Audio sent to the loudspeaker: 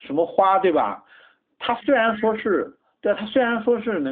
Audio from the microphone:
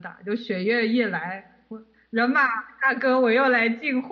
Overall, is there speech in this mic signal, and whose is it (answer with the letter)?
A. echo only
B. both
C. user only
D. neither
C